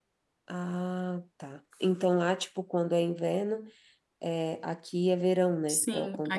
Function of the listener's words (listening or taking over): taking over